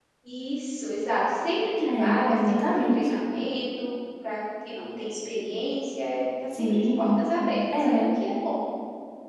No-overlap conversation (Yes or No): No